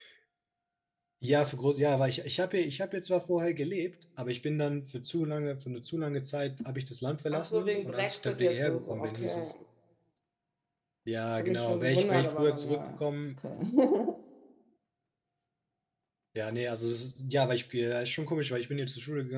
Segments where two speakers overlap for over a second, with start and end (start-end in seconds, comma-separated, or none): 7.3-9.5, 11.4-13.0